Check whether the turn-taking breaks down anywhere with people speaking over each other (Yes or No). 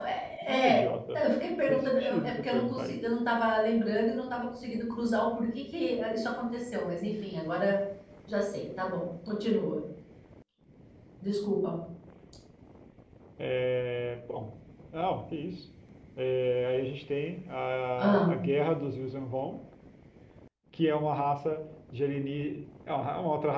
Yes